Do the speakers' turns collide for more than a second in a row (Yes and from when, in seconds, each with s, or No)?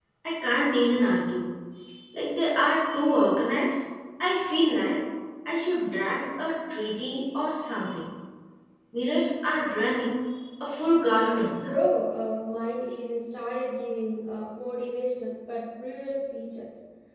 No